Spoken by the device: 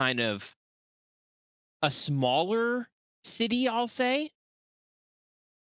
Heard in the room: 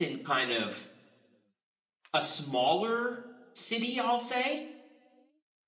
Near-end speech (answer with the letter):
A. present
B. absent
B